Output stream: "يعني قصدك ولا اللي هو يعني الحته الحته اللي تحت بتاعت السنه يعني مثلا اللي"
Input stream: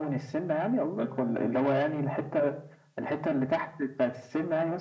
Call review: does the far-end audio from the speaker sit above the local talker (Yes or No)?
Yes